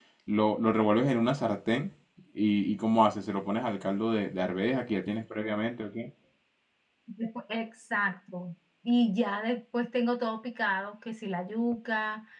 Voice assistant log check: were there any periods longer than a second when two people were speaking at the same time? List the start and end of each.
none

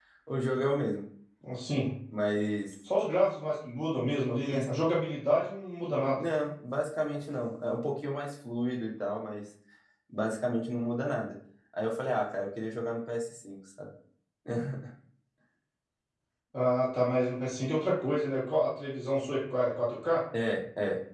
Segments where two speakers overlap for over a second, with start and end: none

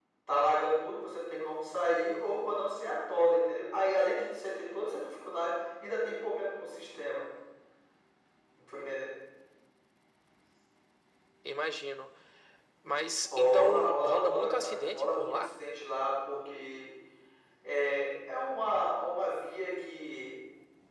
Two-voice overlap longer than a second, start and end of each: 13.4-15.5

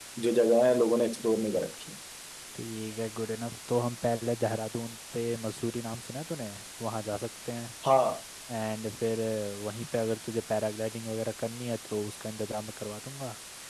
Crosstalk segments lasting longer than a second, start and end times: none

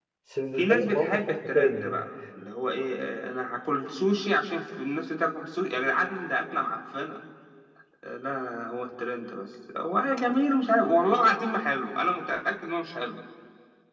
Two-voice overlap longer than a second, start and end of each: 0.6-2.0

